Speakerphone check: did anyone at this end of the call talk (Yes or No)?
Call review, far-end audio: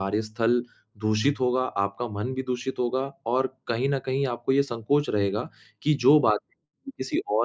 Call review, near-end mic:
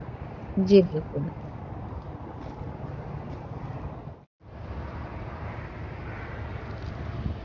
Yes